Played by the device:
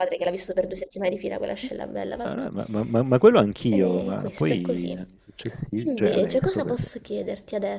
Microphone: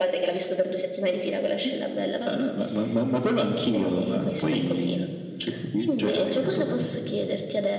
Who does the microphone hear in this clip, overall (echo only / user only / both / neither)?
echo only